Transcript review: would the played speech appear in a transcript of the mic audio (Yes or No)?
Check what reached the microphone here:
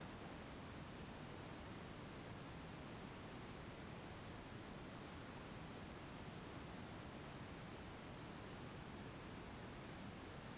No